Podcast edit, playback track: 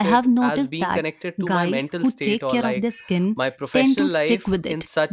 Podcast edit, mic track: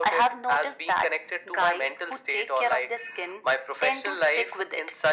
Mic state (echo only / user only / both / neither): echo only